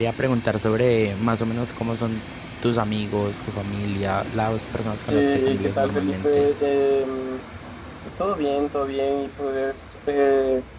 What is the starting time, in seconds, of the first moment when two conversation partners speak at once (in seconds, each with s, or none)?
5.1 s